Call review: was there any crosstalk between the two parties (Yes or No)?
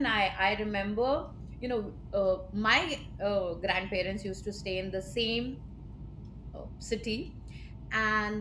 No